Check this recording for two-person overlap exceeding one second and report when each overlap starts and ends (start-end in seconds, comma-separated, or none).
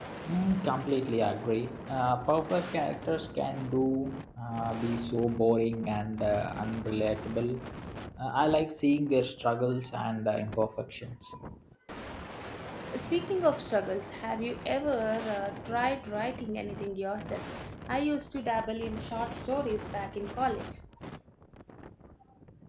none